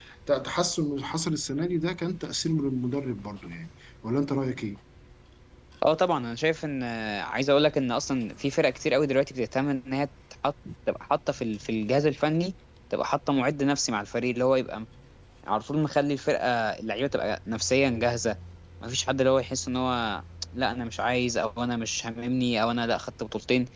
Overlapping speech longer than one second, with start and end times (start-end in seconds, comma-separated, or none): none